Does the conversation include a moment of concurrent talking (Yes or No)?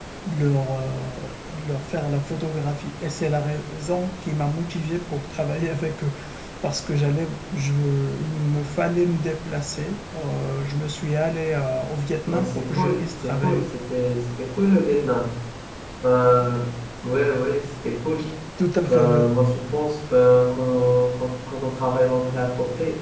Yes